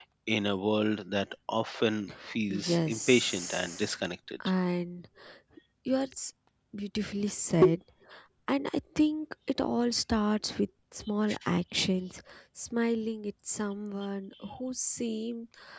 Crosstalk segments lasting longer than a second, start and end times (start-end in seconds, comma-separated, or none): 2.5-3.9